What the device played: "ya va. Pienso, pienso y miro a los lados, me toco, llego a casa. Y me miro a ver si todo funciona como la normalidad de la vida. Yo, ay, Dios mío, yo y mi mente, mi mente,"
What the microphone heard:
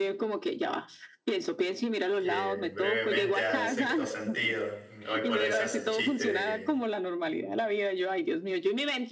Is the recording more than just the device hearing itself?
Yes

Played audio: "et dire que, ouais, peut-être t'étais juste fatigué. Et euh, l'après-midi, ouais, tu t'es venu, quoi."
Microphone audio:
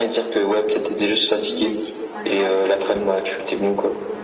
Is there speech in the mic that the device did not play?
Yes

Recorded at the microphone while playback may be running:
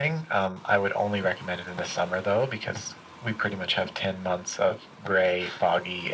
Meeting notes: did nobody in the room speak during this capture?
Yes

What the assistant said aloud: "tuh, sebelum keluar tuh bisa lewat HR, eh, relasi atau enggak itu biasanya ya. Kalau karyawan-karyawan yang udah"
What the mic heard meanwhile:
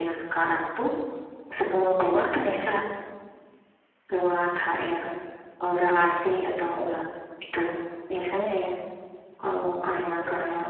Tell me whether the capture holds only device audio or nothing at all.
Yes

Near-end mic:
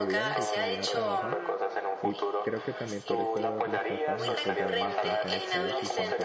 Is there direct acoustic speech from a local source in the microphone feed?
Yes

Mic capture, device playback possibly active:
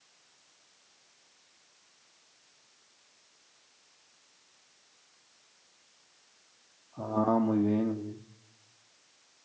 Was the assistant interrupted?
Yes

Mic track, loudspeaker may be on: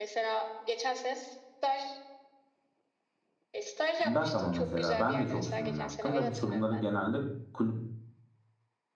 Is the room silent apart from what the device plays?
No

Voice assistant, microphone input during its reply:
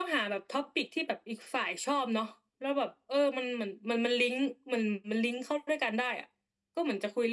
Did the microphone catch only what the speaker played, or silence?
Yes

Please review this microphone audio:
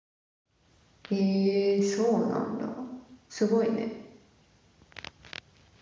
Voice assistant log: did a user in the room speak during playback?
Yes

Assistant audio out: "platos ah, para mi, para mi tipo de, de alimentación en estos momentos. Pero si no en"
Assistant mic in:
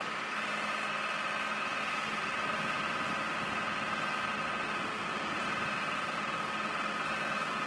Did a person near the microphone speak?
No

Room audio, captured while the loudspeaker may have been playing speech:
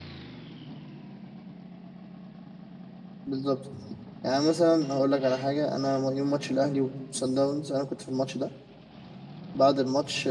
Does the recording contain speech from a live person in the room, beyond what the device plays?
Yes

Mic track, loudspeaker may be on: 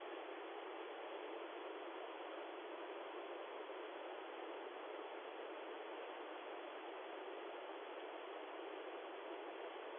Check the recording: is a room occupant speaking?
No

